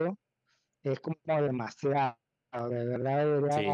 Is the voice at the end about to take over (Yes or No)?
Yes